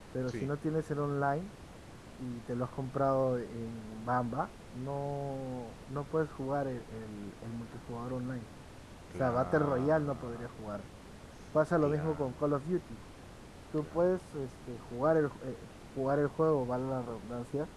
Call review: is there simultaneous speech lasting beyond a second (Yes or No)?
Yes